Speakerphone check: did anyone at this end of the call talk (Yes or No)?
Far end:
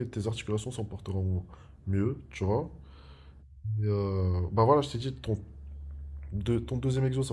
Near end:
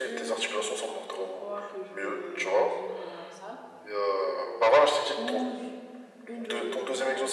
Yes